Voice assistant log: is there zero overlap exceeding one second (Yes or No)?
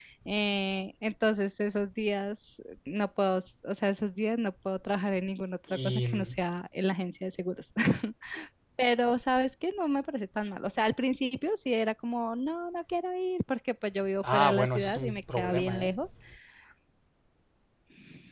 No